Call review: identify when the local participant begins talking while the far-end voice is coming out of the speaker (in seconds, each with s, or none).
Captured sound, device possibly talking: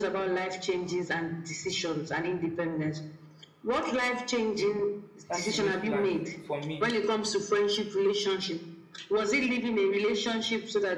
5.3 s